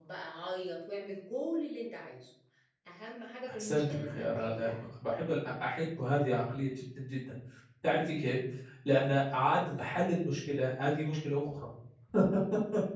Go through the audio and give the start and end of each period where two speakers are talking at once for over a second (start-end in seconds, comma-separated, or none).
3.5-4.8